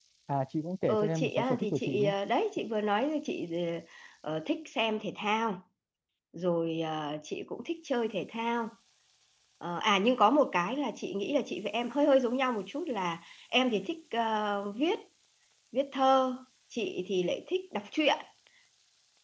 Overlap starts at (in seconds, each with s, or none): 0.9 s